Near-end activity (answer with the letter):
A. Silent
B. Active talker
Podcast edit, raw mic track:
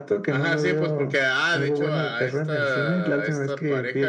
A